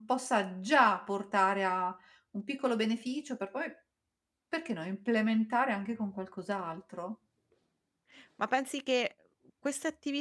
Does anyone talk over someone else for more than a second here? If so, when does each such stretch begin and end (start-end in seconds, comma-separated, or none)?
none